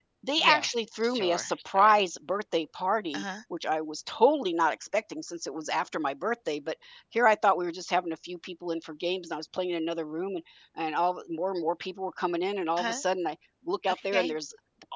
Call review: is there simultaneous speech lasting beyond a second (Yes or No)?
Yes